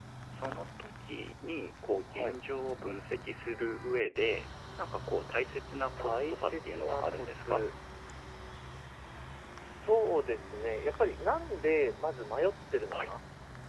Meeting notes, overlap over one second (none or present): present